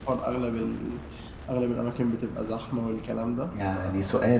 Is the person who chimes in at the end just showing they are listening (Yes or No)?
No